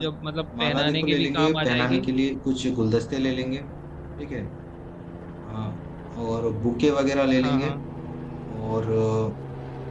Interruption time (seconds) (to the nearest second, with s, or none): 1 s